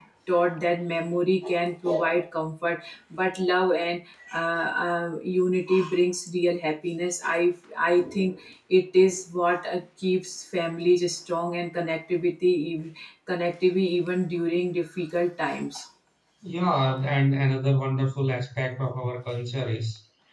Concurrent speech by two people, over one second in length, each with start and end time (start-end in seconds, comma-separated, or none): none